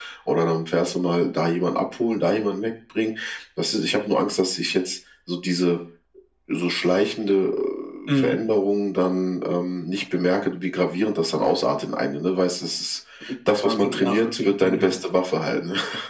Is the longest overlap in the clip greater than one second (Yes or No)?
Yes